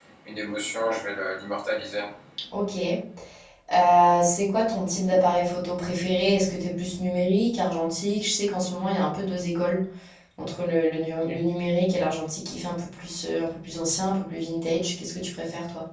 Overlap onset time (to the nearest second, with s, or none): none